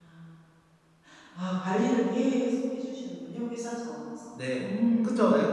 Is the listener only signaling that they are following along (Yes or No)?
No